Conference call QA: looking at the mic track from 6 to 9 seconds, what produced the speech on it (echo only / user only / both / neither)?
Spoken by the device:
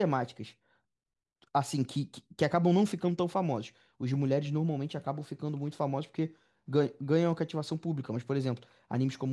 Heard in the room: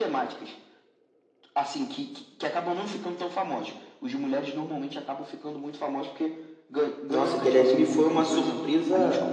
both